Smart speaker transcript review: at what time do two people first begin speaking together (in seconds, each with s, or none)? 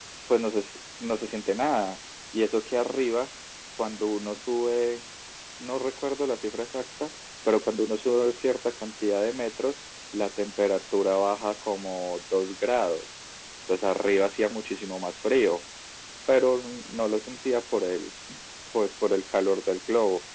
none